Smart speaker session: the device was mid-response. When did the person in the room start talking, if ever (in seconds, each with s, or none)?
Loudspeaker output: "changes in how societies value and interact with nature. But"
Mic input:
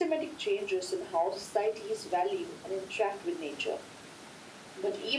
none